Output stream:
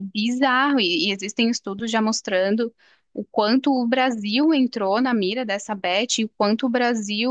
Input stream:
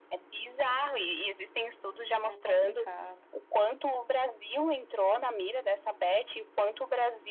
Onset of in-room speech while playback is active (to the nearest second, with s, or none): 2 s